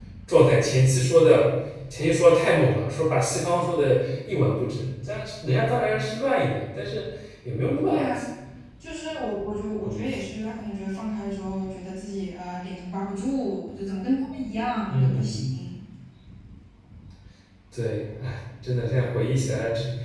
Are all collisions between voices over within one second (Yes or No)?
Yes